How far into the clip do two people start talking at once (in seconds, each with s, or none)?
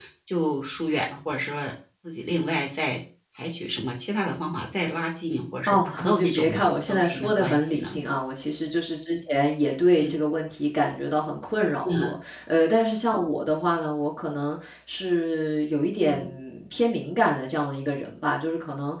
5.7 s